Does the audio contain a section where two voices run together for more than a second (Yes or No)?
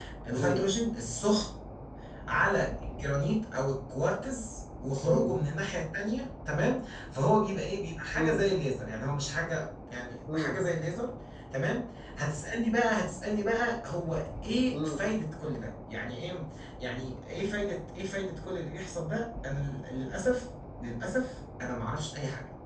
No